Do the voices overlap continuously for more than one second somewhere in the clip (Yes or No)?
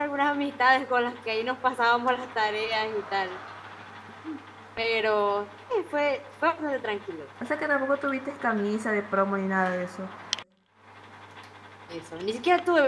No